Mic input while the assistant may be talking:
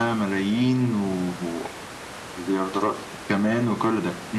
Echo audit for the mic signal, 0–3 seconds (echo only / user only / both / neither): echo only